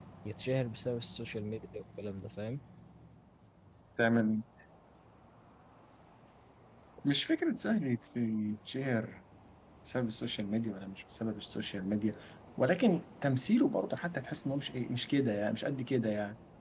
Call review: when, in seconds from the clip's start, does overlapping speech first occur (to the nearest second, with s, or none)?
none